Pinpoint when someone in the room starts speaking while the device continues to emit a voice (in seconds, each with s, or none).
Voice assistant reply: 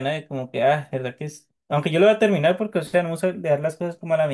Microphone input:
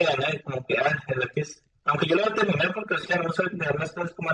none